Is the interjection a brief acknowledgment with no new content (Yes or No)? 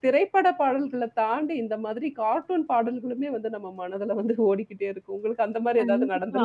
No